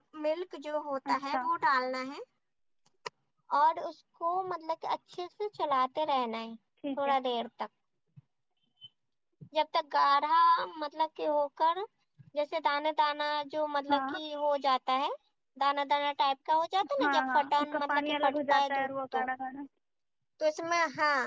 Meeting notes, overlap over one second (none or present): present